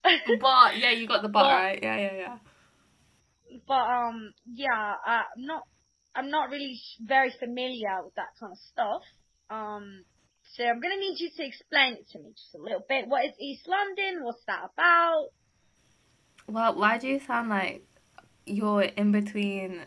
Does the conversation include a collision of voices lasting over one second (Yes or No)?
No